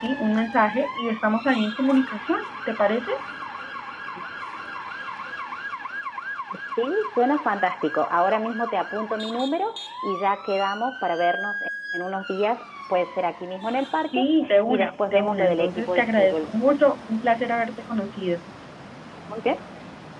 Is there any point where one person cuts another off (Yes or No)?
Yes